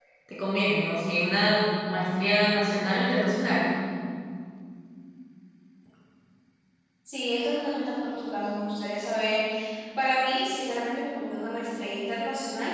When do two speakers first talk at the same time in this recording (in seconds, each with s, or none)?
none